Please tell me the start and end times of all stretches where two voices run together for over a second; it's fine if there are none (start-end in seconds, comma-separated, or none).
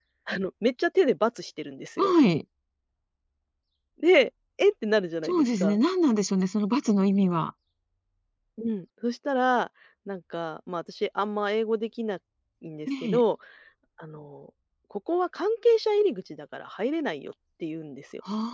none